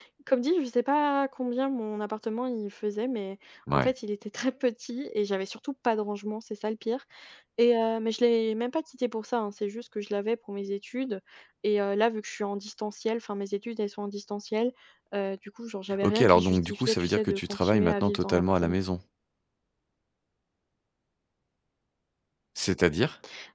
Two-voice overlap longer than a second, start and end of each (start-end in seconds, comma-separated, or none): 16.0-18.8